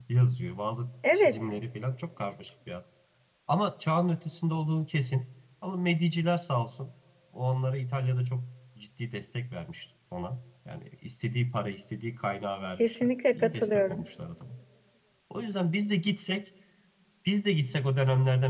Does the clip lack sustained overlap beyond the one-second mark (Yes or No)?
No